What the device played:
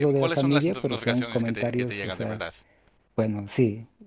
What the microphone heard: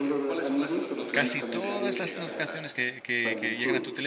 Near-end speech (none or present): present